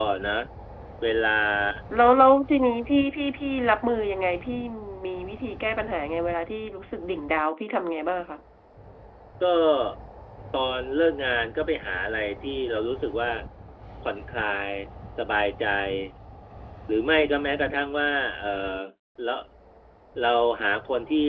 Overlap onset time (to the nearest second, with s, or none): none